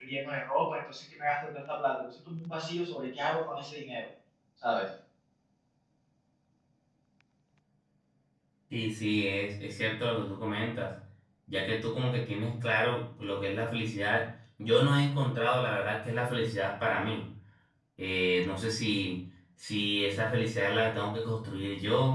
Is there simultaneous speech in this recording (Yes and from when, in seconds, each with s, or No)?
No